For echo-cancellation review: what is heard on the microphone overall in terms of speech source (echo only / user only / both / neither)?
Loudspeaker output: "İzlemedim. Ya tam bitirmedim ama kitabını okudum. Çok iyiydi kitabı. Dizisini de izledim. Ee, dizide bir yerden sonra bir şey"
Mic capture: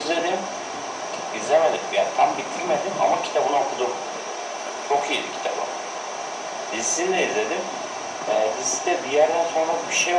echo only